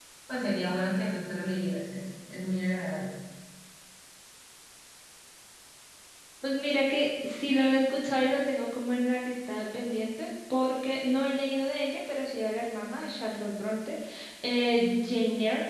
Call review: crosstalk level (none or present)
none